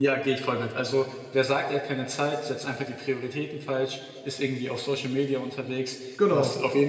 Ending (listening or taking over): listening